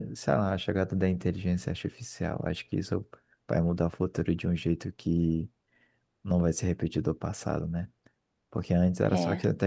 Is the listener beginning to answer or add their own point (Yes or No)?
No